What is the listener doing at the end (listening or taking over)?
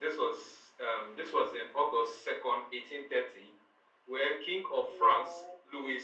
listening